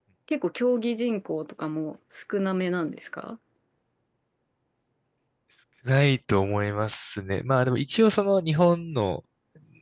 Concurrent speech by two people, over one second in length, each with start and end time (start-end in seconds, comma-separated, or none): none